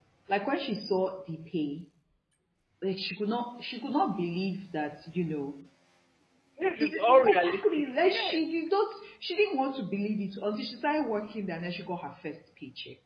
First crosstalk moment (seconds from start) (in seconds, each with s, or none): 6.8 s